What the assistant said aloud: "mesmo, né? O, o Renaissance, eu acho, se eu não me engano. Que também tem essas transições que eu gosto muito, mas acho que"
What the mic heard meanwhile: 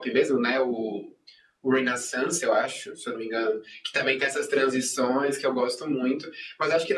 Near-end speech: none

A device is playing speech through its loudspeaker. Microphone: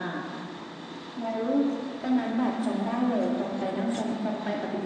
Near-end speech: none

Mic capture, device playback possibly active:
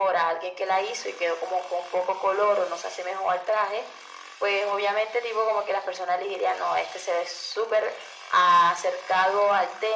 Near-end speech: none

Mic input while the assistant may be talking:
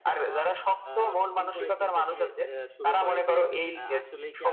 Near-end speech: present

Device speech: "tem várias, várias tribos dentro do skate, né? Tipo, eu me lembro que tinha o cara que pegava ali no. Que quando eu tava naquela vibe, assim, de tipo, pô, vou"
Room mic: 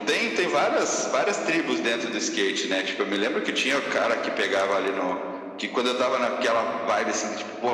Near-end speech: none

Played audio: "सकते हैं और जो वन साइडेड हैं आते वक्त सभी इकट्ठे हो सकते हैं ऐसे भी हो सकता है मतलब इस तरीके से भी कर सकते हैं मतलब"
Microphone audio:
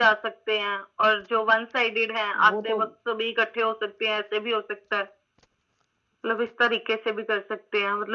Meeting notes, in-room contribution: present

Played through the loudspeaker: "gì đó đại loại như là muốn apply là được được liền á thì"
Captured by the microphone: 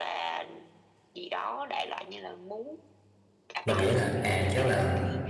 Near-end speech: present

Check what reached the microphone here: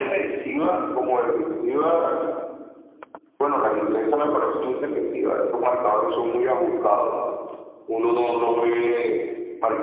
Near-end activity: none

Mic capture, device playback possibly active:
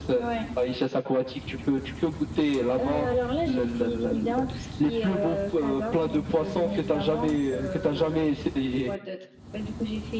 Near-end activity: none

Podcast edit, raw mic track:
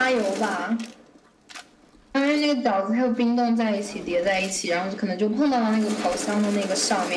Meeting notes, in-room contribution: none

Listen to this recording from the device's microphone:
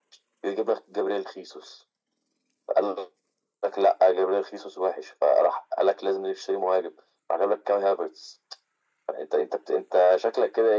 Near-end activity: none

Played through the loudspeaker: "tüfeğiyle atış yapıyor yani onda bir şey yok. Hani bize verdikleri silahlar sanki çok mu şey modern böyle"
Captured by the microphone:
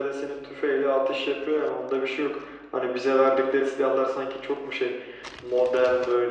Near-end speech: none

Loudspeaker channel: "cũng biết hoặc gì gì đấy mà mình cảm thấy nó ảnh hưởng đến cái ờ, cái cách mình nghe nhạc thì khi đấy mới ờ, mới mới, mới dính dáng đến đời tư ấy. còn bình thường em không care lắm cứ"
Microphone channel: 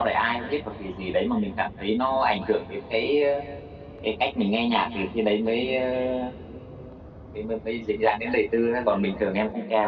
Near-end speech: none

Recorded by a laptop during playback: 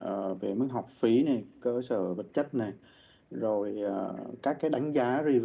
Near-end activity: none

